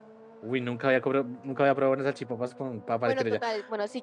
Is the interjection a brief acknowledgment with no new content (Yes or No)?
No